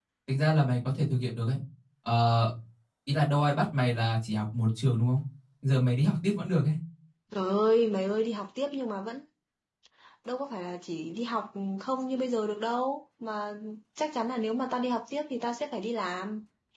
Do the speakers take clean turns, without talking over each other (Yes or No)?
Yes